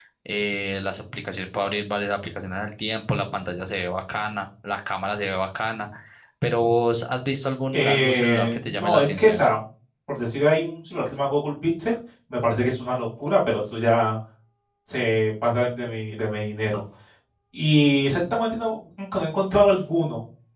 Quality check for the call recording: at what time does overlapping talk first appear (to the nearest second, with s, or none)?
8 s